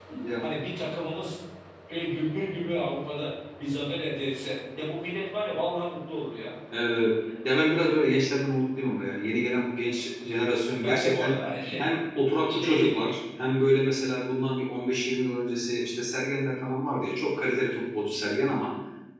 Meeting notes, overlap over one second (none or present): none